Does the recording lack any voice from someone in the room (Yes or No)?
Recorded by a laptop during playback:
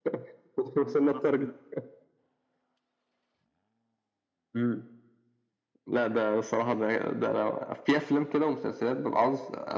Yes